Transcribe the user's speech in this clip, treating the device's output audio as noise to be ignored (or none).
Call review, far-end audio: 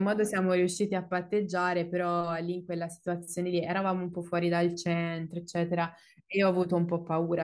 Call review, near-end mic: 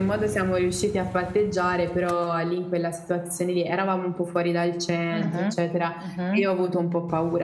mhm, mhm.